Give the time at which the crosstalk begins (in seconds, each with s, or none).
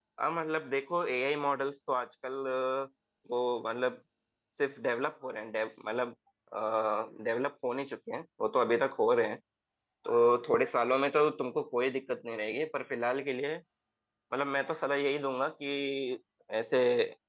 none